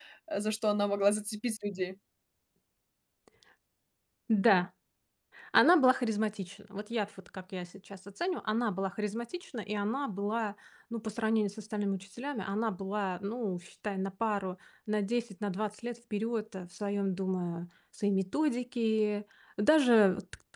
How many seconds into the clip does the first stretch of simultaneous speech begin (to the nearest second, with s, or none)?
none